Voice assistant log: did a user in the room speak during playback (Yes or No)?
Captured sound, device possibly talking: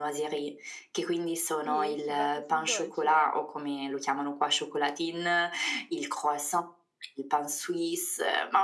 Yes